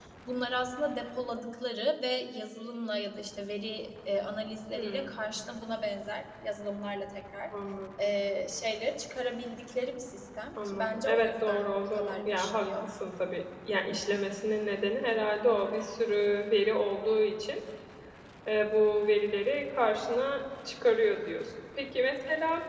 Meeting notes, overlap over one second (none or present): present